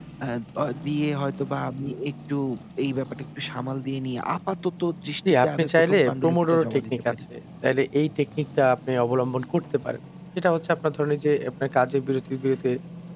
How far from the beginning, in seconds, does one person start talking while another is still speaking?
5 s

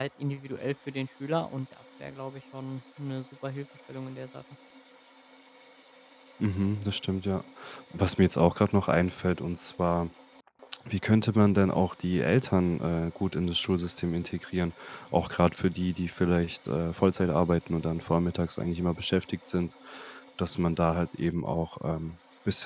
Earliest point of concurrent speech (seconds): none

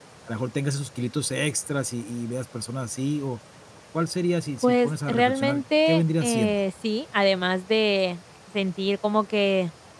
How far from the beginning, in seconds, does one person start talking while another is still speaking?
5 s

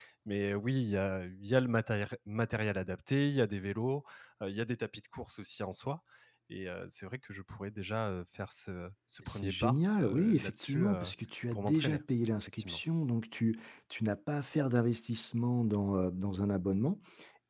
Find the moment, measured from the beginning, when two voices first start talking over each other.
9 s

